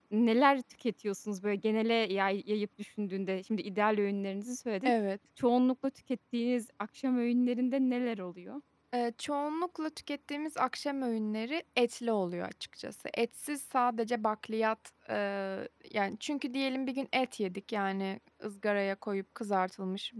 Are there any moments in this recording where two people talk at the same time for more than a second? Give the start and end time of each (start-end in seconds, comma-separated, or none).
none